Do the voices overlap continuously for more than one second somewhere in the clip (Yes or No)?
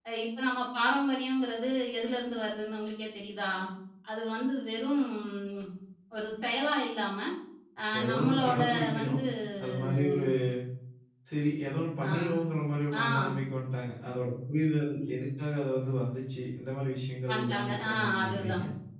Yes